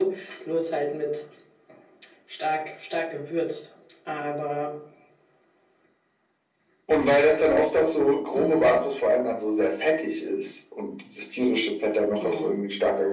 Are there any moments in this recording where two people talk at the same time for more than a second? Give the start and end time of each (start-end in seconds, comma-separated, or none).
none